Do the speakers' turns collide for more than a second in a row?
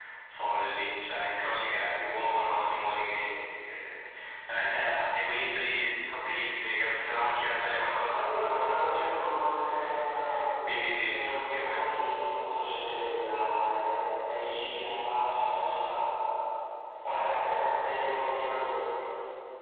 Yes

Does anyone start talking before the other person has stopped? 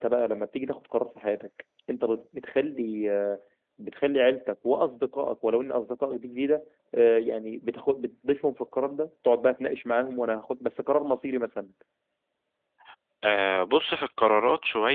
No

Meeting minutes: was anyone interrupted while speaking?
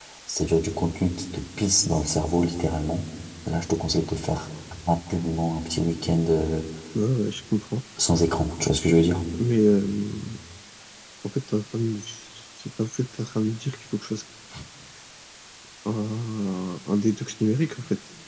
No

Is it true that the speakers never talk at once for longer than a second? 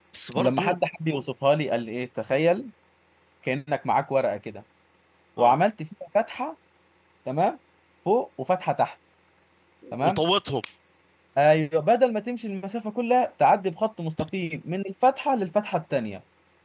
Yes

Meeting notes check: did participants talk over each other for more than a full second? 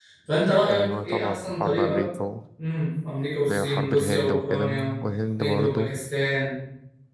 Yes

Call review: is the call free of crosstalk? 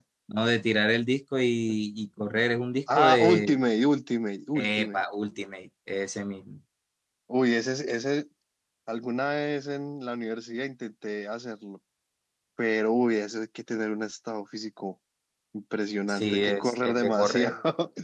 No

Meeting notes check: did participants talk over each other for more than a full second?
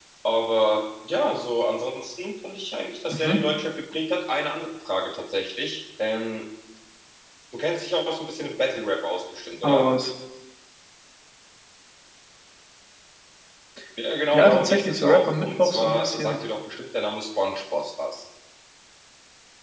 Yes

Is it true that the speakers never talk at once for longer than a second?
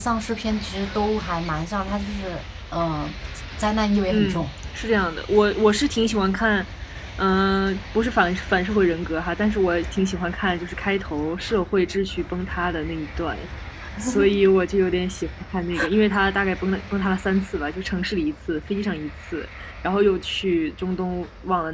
Yes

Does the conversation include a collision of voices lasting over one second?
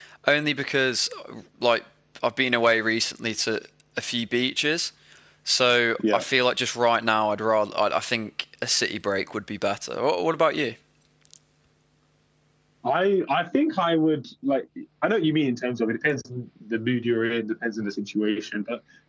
No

